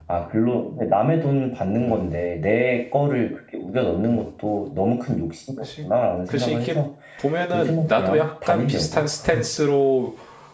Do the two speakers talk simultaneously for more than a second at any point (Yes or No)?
Yes